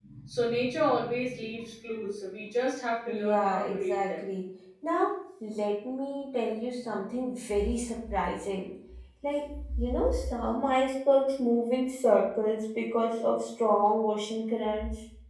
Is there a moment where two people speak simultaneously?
Yes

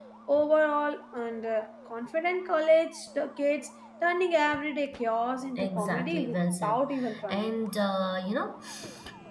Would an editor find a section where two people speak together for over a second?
Yes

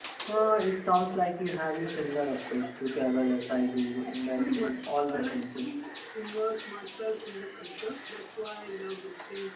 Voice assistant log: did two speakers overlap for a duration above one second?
Yes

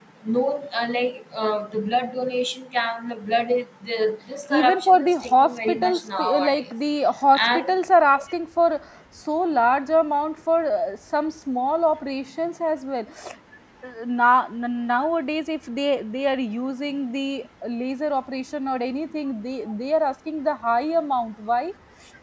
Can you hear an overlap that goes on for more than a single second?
Yes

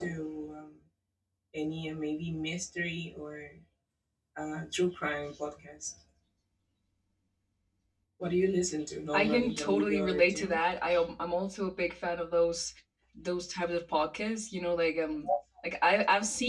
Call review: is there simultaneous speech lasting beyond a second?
Yes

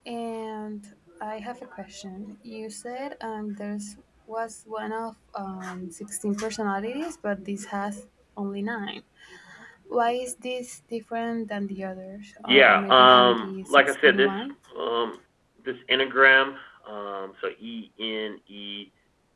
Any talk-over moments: Yes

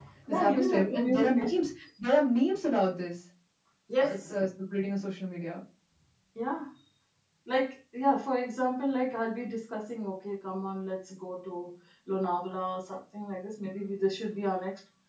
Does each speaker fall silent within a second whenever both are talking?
No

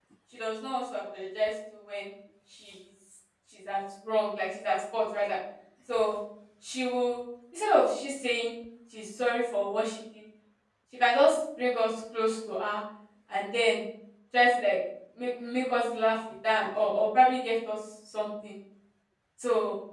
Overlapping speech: No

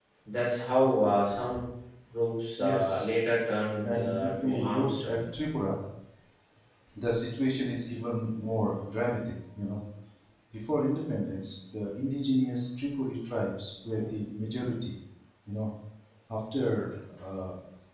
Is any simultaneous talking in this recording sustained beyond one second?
Yes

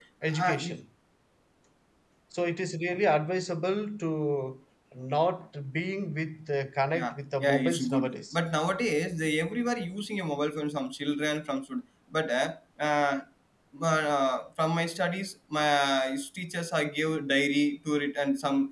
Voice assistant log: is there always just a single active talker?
No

